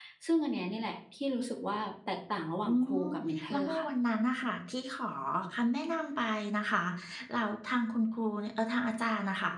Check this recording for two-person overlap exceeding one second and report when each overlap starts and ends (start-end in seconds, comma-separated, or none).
none